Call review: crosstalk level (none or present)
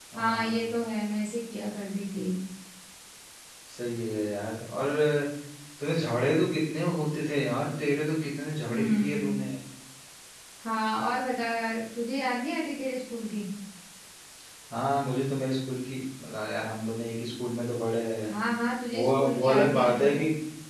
present